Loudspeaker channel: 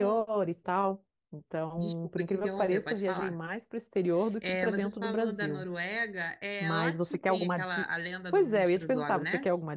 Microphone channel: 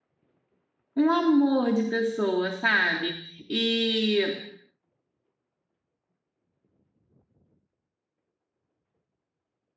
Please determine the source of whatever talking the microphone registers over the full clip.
user only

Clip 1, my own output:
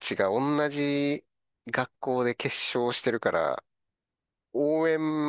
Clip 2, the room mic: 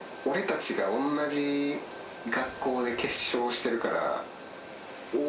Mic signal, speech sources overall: echo only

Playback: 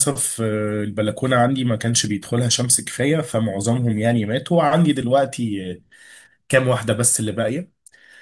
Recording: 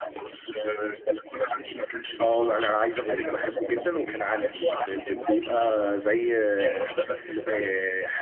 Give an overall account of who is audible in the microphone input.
both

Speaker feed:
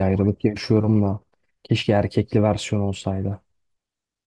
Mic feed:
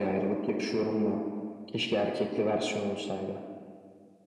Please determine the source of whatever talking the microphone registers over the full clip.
echo only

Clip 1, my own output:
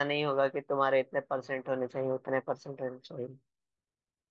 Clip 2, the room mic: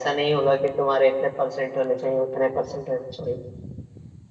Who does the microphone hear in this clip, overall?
echo only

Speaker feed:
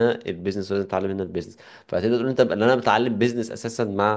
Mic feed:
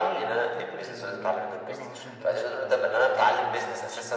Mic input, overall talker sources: both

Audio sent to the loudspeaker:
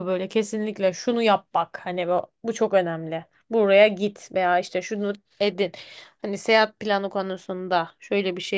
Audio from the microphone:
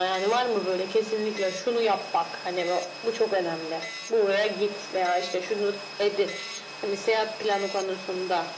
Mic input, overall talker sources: echo only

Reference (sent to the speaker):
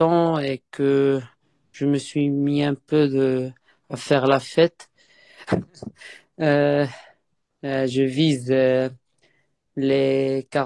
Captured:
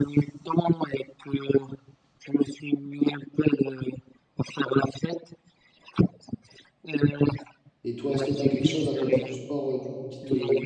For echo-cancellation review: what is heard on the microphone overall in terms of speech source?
both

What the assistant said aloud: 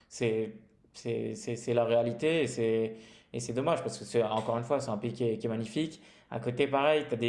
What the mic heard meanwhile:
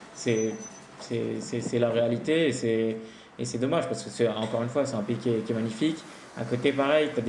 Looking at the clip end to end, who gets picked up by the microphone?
echo only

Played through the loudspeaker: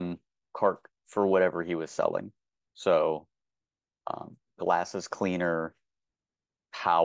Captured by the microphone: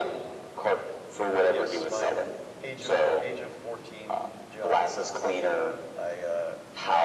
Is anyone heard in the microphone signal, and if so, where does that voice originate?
both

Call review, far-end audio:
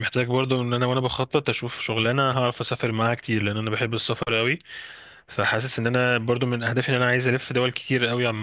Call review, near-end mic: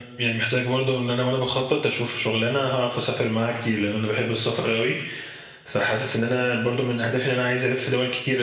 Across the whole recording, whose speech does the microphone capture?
echo only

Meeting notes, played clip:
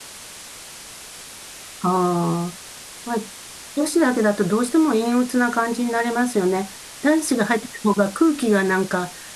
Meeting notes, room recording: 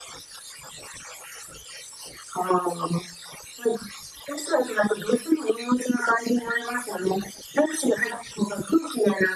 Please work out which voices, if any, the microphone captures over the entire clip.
echo only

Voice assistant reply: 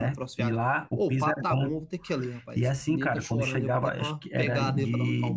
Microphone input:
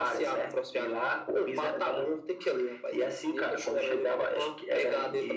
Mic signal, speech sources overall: echo only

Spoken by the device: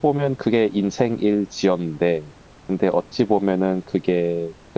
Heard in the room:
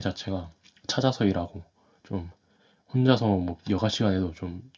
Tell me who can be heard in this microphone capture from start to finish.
user only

